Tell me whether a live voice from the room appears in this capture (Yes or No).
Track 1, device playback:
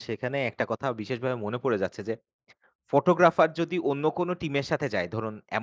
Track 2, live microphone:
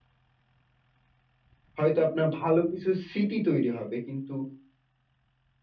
Yes